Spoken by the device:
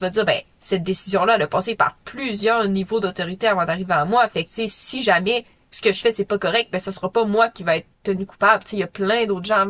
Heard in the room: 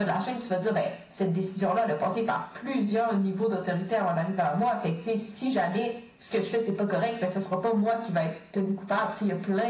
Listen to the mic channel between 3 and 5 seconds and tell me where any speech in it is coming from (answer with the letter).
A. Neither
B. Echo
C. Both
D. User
B